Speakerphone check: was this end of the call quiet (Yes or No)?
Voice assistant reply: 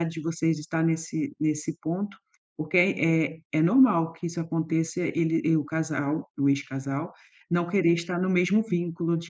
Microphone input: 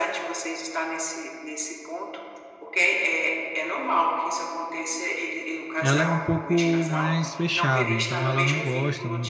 No